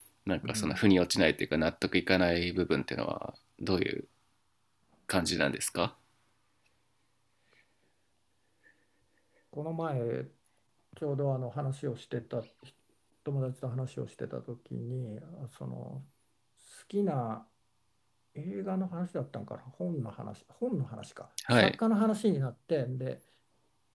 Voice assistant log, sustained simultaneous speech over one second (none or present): none